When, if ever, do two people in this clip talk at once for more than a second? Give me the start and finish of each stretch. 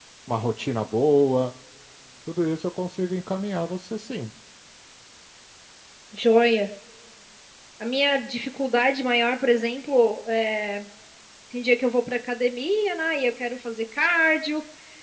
none

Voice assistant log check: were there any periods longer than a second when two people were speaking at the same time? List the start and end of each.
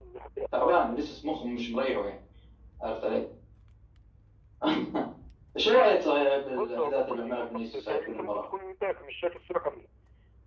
6.5-8.4

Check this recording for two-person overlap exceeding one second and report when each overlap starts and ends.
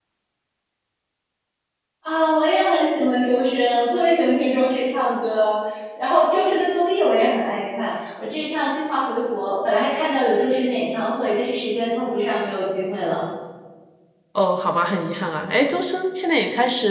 none

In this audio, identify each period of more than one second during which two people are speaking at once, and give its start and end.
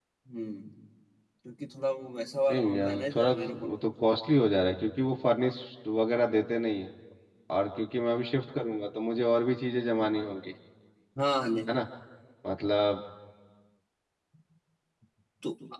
2.5-4.2

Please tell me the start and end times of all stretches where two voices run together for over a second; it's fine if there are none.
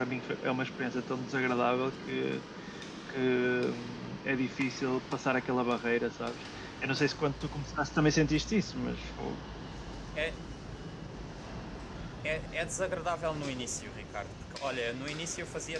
none

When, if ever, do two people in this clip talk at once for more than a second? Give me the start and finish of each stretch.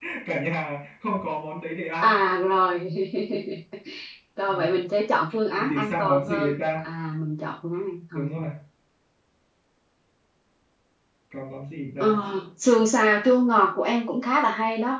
5.5-6.9

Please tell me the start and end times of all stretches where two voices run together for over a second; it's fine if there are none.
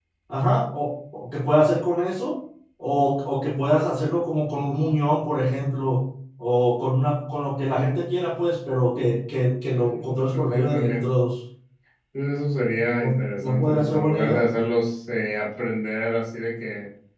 9.7-10.9, 13.0-14.4

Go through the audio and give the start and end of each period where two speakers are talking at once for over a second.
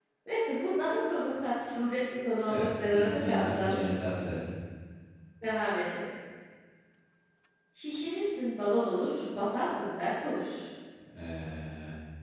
2.5-3.8

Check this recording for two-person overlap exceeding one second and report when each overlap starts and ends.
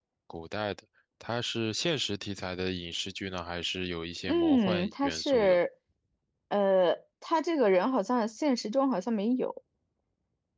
4.3-5.6

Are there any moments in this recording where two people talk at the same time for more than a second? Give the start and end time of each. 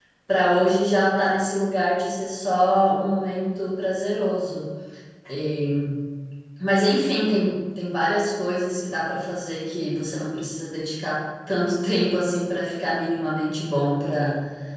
none

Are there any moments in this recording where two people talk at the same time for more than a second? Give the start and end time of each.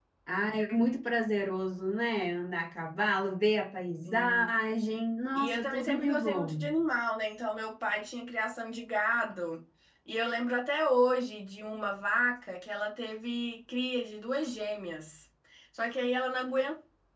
5.3-6.7

